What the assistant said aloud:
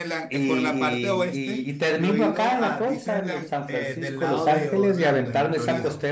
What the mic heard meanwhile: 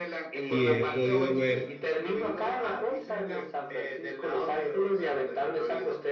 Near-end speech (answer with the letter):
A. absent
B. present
B